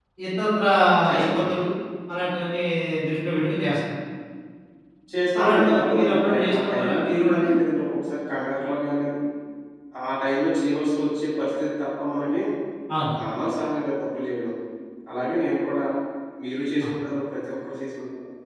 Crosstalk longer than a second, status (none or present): present